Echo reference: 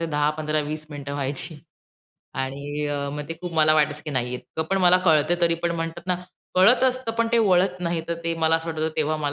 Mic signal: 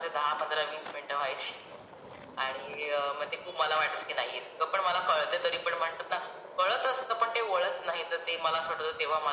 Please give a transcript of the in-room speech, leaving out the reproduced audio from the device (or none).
none